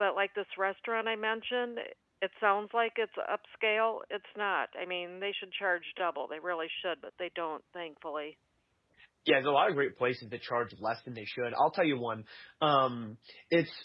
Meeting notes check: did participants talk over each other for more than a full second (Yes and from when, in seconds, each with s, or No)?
No